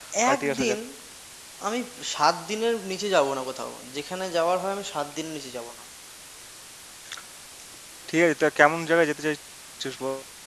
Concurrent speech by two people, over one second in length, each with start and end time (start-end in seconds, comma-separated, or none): none